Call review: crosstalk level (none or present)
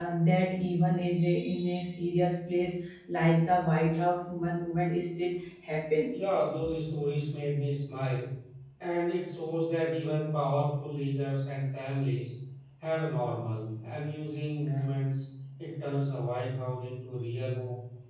none